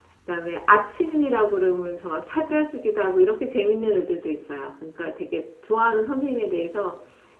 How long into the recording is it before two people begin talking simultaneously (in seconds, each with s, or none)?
none